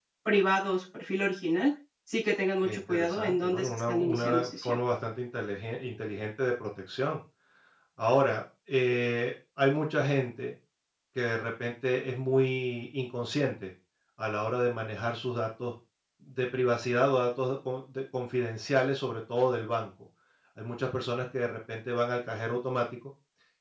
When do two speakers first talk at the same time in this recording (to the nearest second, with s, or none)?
3 s